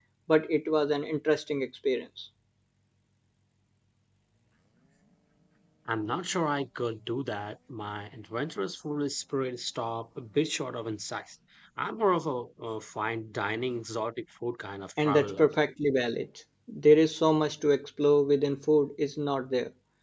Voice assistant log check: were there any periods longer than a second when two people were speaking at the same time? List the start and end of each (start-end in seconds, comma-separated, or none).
none